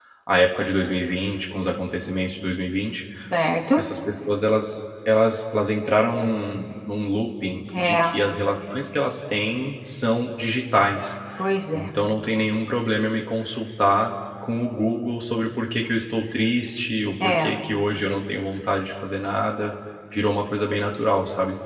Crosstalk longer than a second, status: none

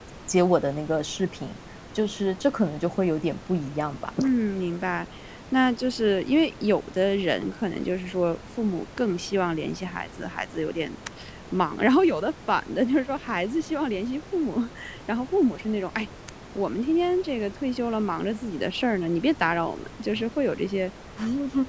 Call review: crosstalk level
none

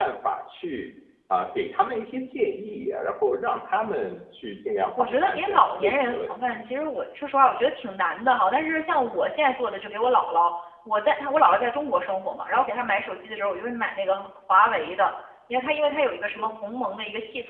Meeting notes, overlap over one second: present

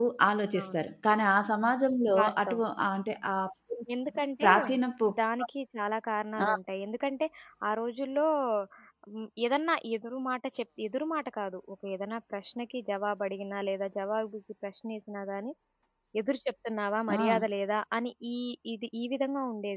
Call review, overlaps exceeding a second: none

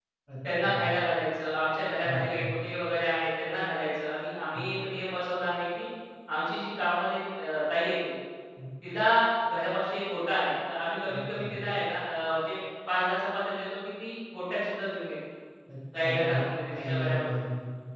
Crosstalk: present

